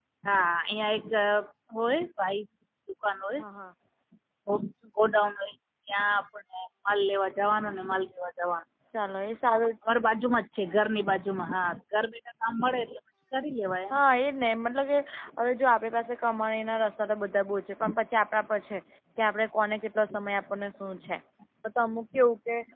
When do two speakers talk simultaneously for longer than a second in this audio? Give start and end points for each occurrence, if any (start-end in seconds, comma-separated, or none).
none